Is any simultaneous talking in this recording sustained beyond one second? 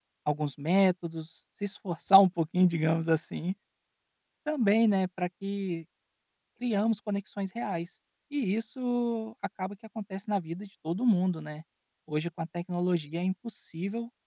No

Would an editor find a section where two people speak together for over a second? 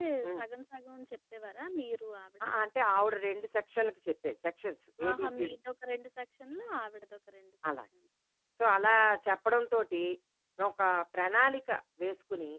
No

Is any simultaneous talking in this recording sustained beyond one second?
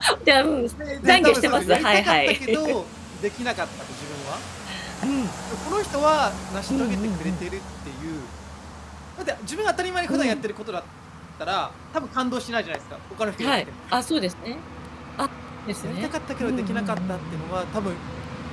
Yes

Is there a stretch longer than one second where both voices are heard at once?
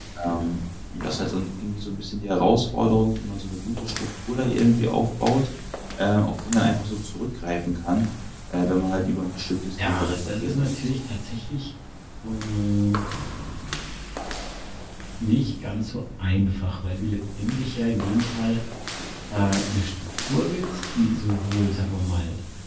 Yes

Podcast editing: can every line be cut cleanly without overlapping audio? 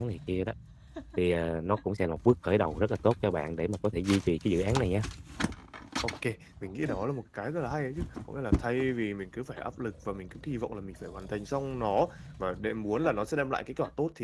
Yes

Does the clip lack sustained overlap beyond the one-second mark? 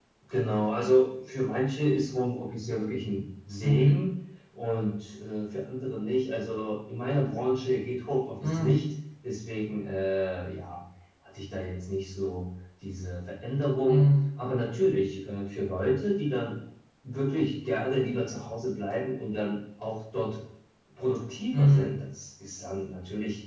Yes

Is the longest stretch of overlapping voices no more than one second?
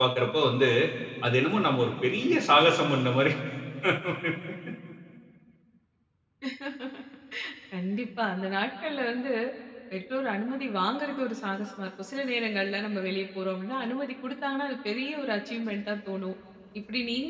Yes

